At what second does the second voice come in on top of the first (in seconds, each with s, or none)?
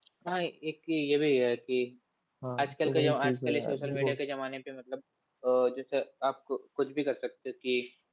2.6 s